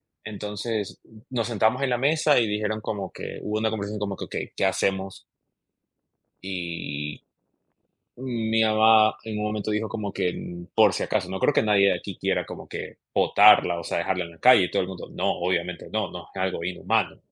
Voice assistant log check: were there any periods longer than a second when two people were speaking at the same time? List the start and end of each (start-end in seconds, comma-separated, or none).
none